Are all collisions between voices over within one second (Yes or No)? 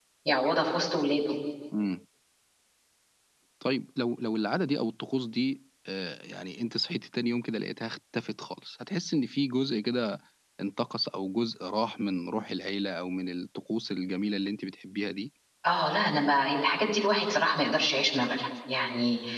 Yes